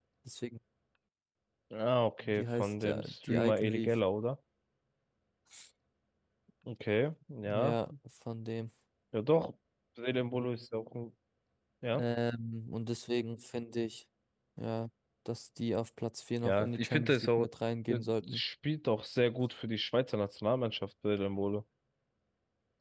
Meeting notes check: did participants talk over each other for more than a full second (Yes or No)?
Yes